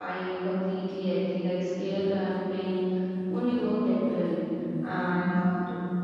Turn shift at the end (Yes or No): No